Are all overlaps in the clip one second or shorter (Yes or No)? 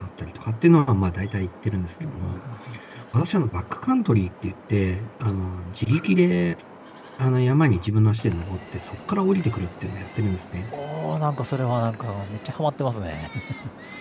Yes